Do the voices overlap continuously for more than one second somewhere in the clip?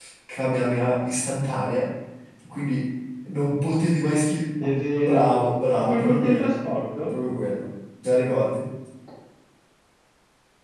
Yes, from 5.0 s

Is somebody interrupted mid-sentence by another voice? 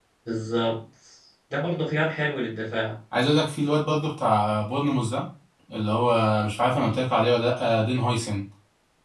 No

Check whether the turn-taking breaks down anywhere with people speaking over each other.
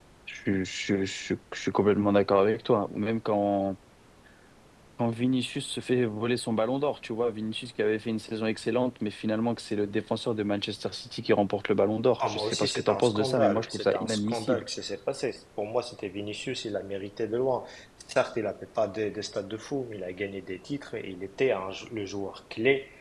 Yes, from 12.2 s

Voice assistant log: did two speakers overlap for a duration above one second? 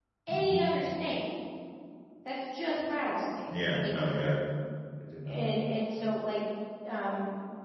No

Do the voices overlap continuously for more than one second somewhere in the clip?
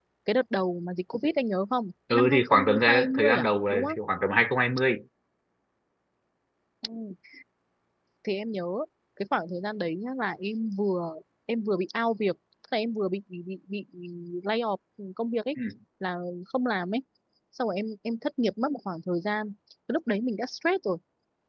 Yes, from 2.1 s

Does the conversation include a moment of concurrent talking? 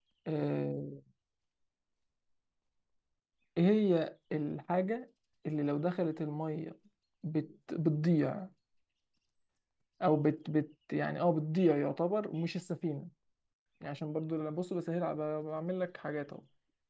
No

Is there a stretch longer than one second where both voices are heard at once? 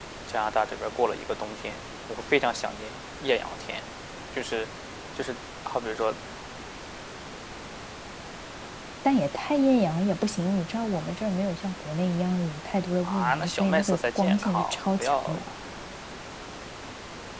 Yes, from 13.0 s

